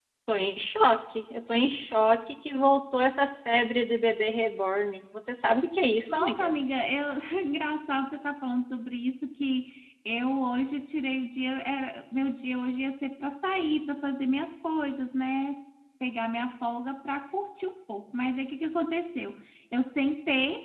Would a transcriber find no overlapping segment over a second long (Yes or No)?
Yes